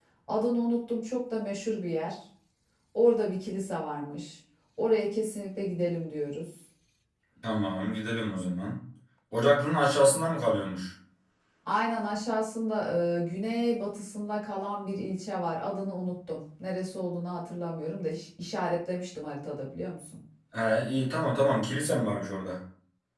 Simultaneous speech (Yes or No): No